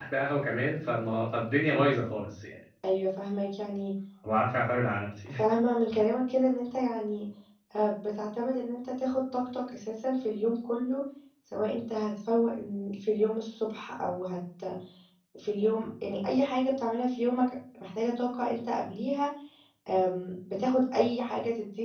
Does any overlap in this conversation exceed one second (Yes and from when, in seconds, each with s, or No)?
No